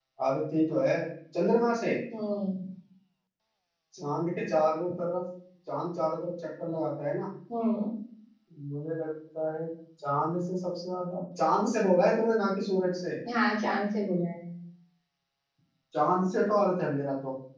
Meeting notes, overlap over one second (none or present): none